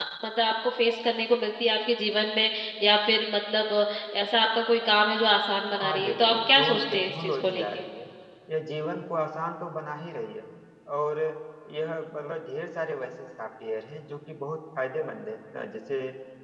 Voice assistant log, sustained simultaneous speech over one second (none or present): present